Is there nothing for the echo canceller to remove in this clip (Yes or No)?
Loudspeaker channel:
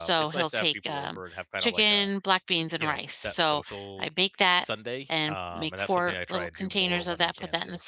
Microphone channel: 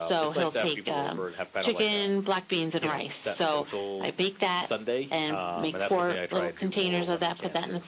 No